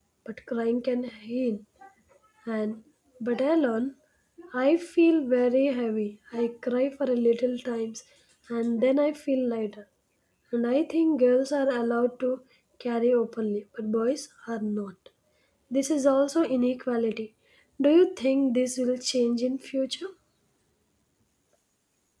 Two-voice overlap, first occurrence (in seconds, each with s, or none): none